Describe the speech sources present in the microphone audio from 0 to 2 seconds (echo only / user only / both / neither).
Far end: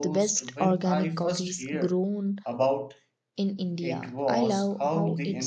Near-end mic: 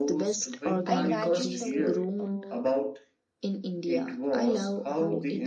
both